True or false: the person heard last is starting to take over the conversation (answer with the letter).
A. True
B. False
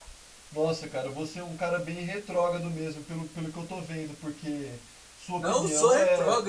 A